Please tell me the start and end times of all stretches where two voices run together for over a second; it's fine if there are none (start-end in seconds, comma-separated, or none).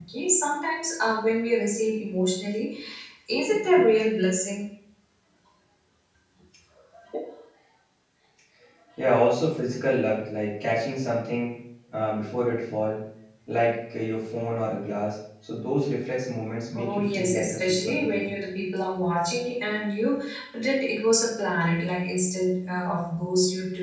16.8-18.3